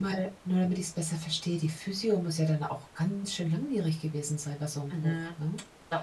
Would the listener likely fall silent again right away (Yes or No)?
No